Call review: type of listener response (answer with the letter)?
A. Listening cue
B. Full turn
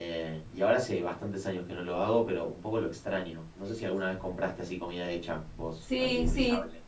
B